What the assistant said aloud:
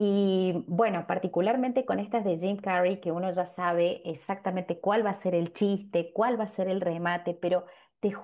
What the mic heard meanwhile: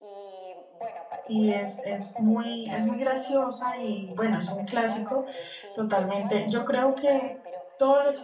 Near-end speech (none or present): present